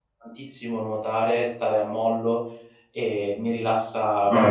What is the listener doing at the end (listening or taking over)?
taking over